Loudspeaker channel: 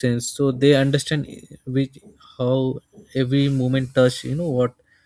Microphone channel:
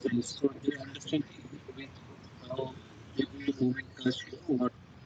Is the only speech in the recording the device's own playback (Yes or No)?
Yes